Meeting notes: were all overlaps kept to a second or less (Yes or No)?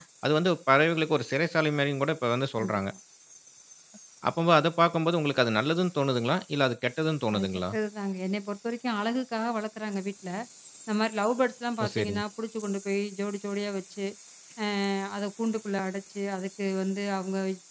Yes